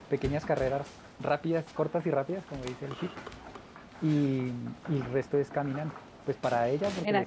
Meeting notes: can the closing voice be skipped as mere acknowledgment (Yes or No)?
Yes